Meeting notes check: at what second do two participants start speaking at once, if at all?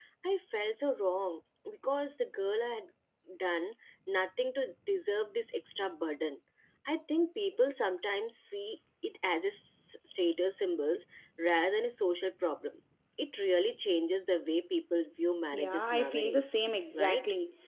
15.5 s

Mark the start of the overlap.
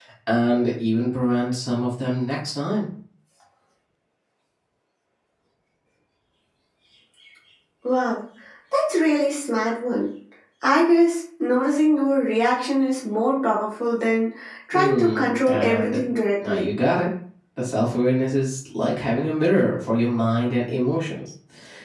14.7 s

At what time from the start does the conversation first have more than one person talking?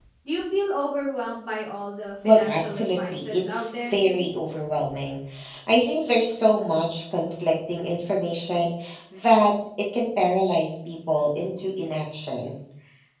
2.2 s

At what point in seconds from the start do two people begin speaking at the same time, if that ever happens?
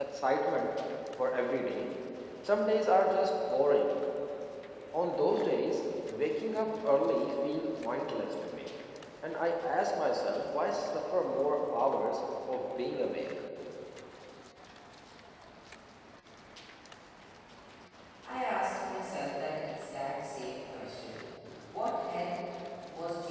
none

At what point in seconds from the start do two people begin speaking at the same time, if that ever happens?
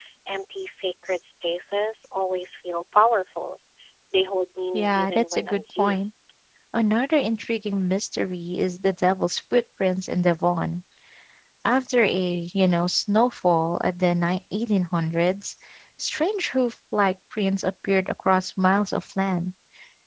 4.7 s

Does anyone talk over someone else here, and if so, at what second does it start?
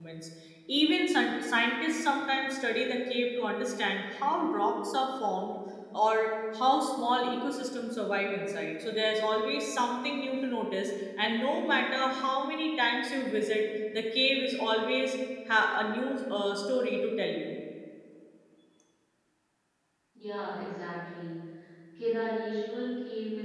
none

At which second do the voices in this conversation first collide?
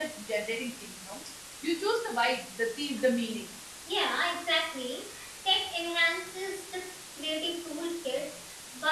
none

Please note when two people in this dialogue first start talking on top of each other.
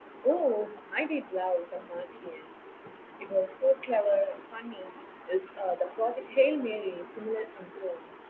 none

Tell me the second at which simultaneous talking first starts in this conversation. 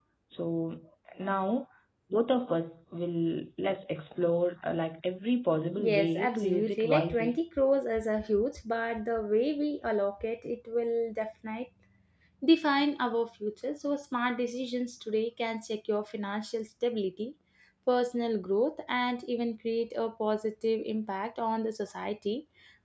5.8 s

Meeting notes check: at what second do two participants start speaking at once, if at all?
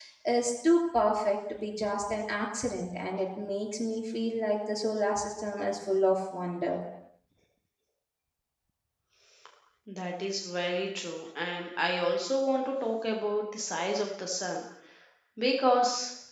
none

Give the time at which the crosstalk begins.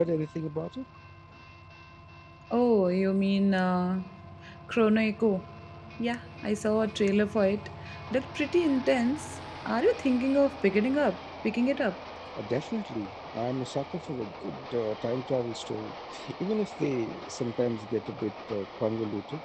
none

